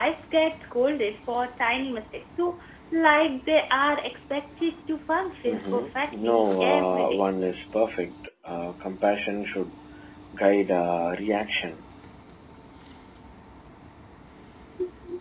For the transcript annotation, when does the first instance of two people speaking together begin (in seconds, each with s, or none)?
5.5 s